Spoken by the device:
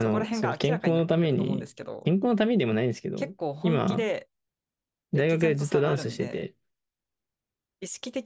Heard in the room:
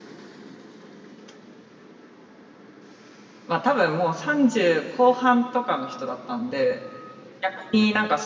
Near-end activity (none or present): present